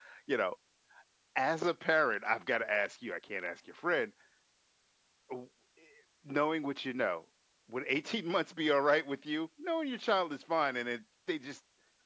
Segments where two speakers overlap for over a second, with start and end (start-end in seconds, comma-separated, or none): none